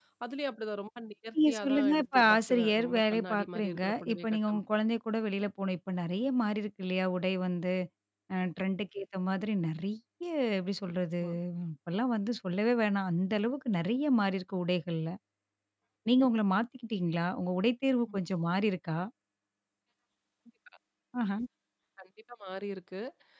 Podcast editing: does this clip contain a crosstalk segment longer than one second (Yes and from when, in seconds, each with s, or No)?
Yes, from 1.5 s